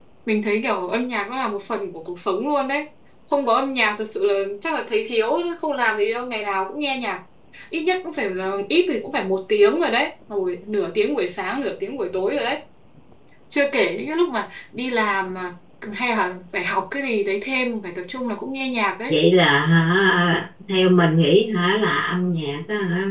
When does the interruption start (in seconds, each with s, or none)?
none